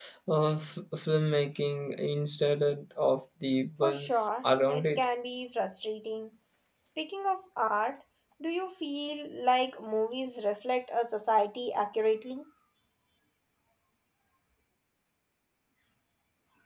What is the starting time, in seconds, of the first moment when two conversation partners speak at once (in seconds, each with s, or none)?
3.8 s